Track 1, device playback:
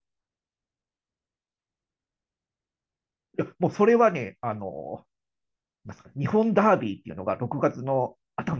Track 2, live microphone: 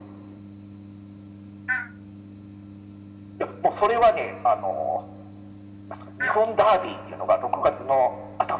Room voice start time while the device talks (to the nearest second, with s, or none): none